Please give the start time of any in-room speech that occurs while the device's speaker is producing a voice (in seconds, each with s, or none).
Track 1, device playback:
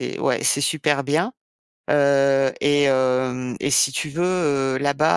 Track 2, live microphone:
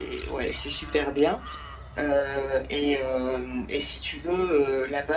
none